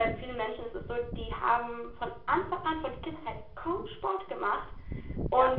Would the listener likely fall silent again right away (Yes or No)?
Yes